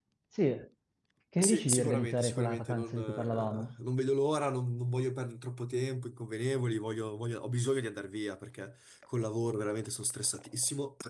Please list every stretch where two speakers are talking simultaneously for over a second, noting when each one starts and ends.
1.4-3.7

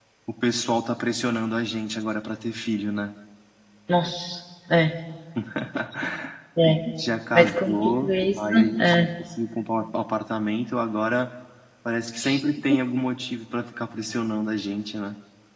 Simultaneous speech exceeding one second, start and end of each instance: 7.3-9.1

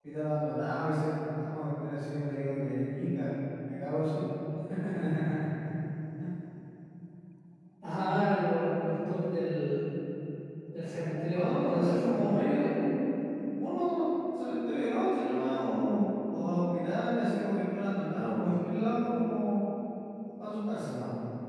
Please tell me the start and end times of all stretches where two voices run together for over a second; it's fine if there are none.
11.3-12.6

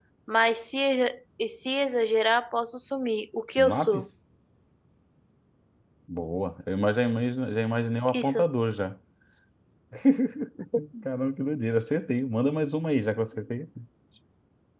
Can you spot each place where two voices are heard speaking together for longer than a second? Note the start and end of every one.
none

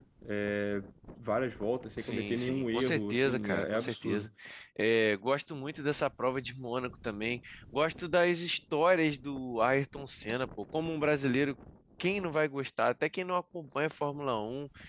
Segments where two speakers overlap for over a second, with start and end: 2.0-4.3

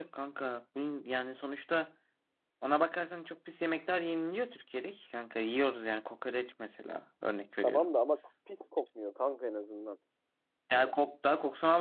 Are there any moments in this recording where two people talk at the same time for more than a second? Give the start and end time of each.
none

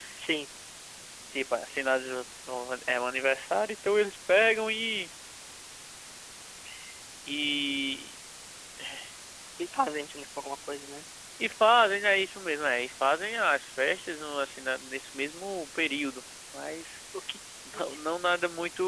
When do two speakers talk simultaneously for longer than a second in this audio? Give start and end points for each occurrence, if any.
none

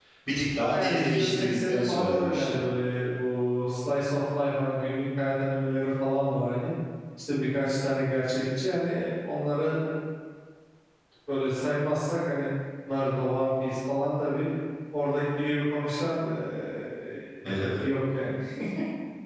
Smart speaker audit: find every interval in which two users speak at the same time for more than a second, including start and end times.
0.7-2.4

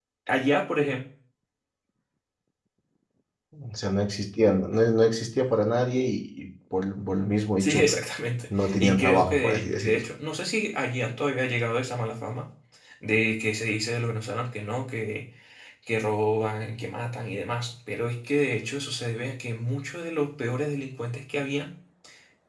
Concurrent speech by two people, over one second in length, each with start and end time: 8.5-10.0

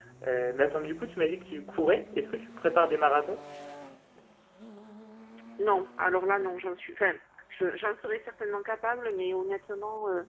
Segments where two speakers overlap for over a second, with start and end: none

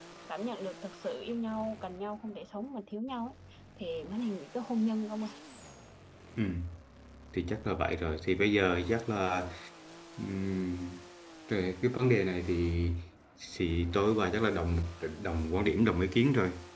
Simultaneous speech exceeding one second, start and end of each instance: none

